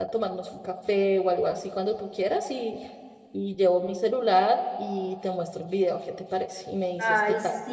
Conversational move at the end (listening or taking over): taking over